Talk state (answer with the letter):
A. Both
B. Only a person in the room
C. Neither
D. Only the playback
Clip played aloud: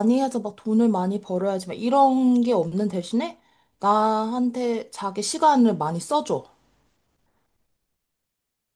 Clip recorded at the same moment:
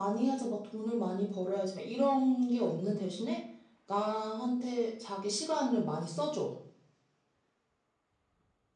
D